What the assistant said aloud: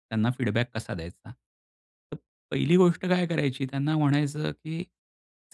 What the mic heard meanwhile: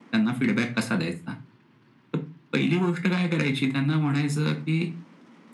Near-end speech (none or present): none